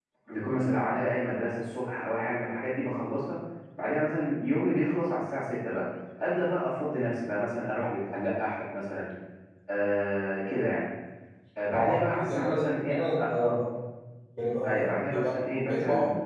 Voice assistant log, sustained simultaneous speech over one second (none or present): present